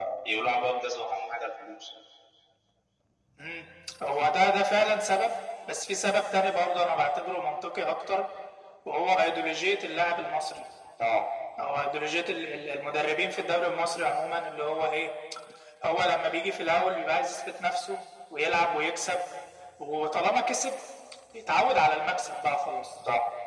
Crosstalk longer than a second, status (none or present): none